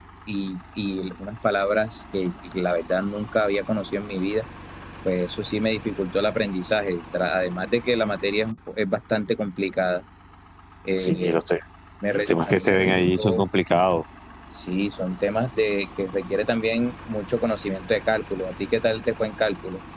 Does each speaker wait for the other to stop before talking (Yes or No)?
No